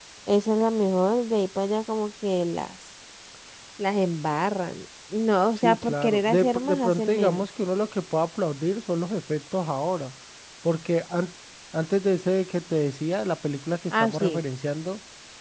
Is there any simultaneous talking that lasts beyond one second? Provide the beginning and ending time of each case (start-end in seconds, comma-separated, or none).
5.6-7.5